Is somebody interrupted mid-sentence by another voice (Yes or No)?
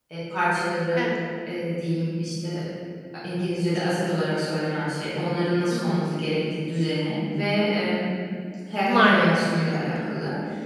Yes